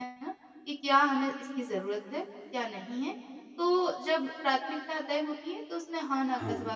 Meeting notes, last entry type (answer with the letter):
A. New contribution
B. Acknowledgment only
B